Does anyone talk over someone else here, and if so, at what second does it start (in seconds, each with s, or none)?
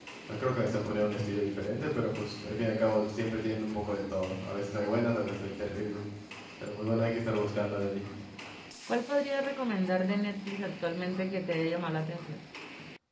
none